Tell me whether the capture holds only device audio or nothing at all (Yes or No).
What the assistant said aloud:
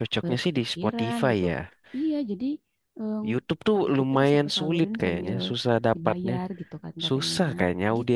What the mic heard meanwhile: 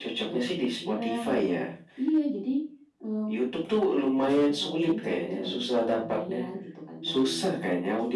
Yes